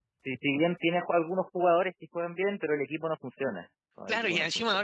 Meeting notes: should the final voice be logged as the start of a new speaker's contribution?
Yes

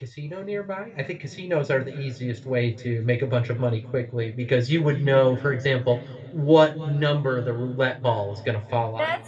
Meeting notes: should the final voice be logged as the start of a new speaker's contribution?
Yes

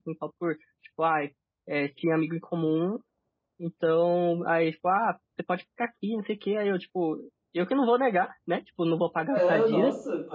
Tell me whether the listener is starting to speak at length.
Yes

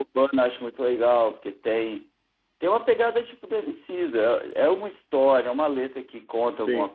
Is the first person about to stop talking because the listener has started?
No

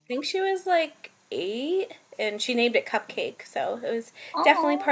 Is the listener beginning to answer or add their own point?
No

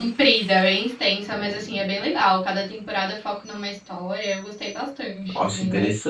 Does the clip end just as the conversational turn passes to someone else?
Yes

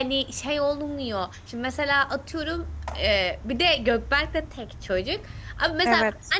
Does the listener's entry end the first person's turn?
No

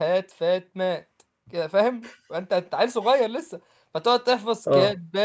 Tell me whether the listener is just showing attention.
Yes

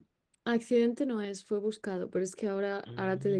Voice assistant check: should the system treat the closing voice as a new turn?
No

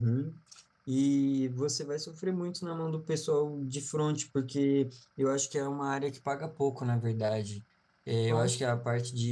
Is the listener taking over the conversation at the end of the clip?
No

